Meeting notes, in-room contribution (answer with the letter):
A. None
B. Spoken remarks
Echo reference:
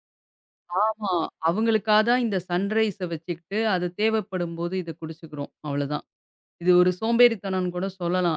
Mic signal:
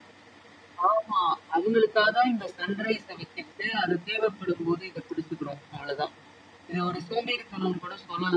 A